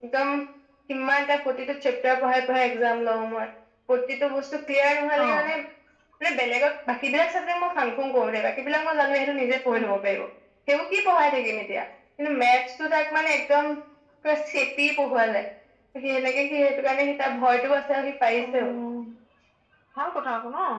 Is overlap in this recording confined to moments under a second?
Yes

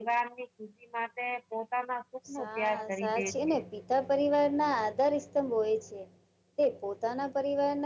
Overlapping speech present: Yes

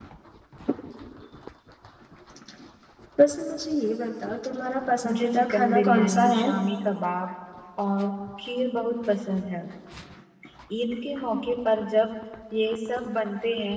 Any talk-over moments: Yes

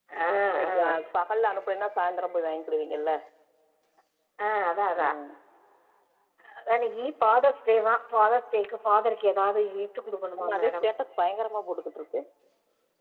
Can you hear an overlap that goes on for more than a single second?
No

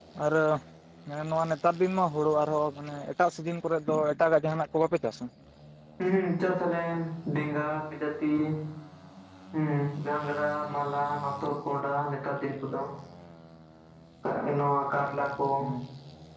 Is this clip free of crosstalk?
Yes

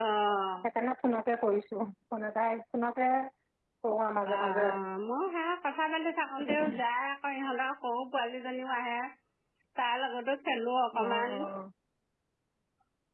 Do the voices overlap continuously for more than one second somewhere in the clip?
No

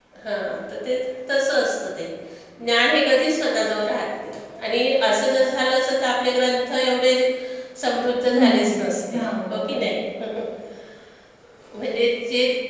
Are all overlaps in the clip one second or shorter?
No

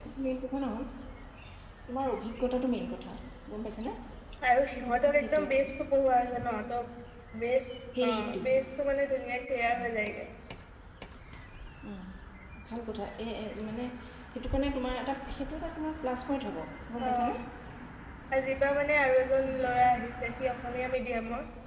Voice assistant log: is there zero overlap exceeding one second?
Yes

